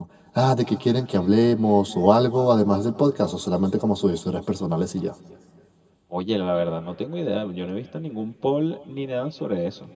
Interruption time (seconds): none

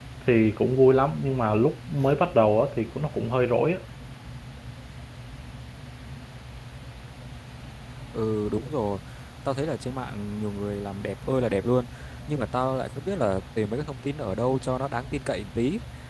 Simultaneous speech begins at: none

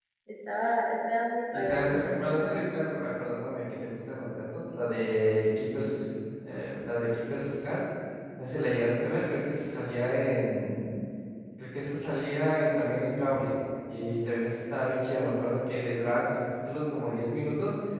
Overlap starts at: 1.5 s

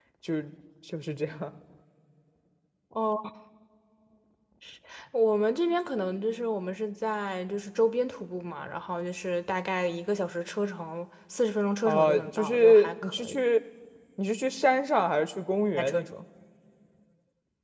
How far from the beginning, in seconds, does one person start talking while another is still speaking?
11.8 s

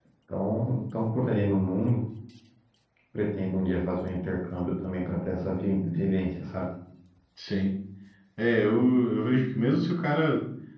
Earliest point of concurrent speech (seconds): none

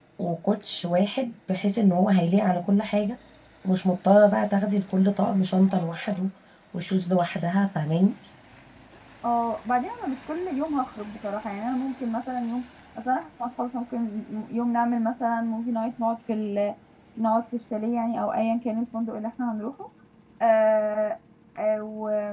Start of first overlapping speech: none

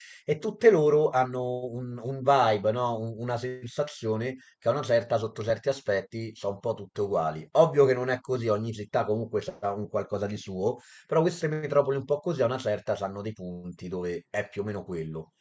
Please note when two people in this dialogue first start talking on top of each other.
none

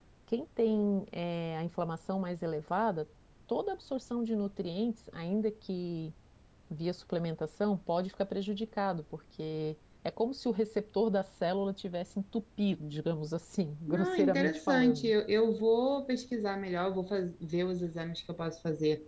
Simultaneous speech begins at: 13.9 s

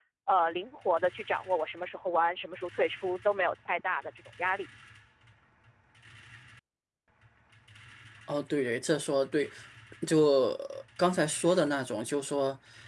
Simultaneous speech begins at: none

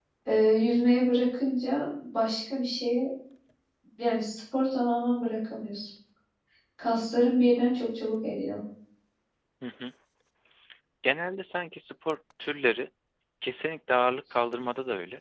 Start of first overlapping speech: none

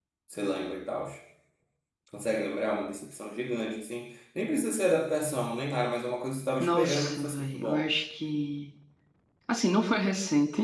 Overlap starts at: 6.6 s

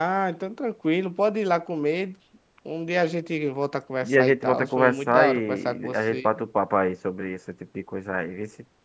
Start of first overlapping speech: 4.0 s

